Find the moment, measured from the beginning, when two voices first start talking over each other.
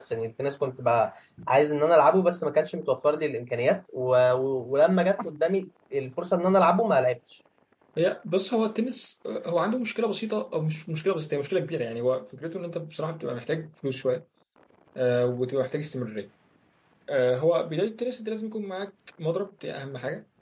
none

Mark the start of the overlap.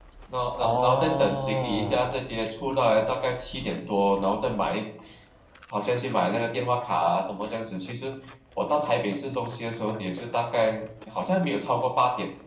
1 s

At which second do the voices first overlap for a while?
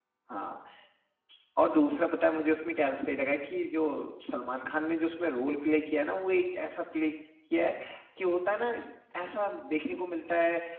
none

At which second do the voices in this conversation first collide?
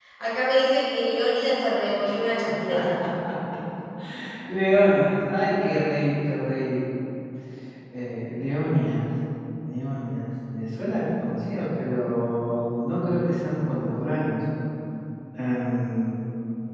none

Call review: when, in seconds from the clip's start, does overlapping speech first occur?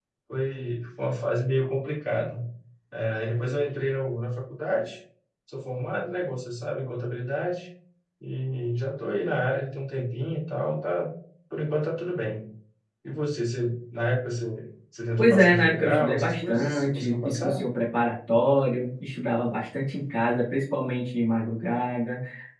15 s

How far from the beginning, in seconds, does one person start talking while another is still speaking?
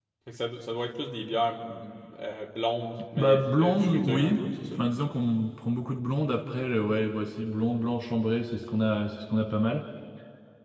3 s

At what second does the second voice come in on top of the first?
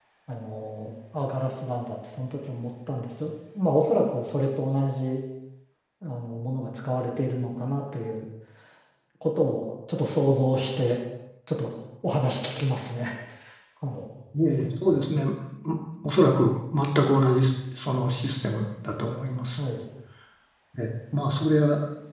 none

